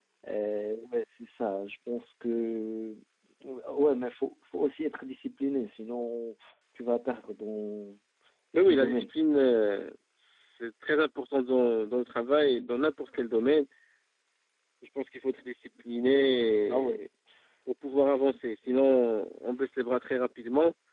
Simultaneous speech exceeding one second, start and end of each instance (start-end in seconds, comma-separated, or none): none